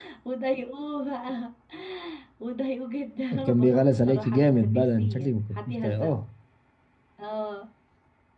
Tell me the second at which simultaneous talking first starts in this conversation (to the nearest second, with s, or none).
3 s